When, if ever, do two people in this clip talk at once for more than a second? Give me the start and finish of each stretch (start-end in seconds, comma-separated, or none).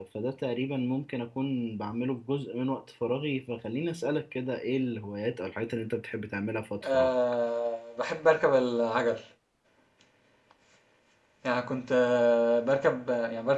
none